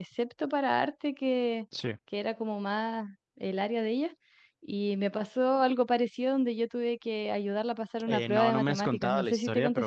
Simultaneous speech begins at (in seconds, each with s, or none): 8.1 s